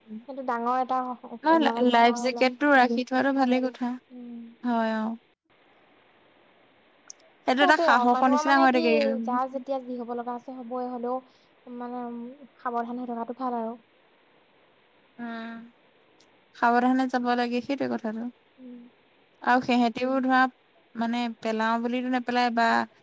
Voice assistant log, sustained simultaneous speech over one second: present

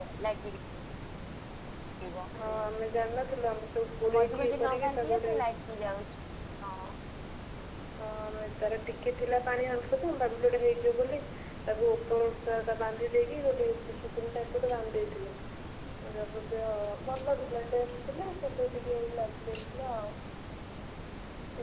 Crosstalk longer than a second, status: present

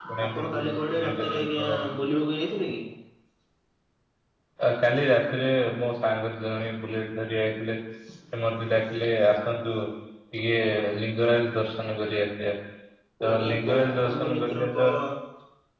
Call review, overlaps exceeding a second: present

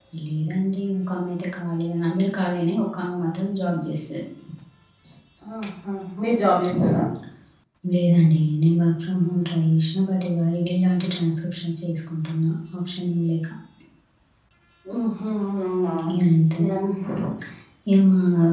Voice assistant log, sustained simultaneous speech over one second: none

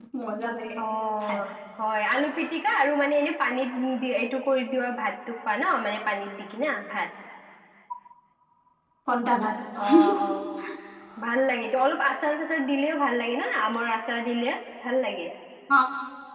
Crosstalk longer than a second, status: none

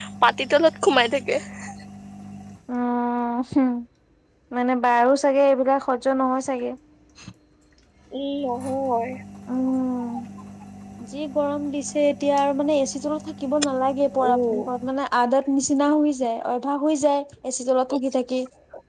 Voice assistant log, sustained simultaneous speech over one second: none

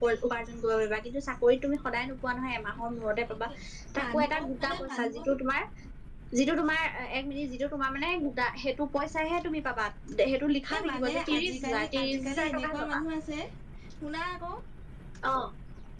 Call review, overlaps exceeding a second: present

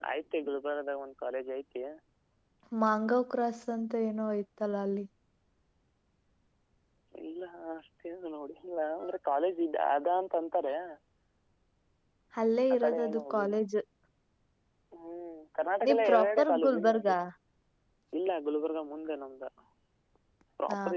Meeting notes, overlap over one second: present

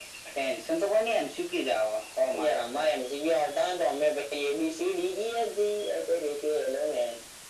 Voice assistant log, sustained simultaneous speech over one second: none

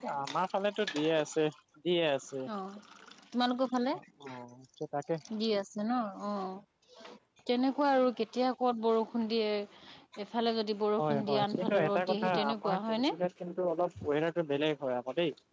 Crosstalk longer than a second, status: present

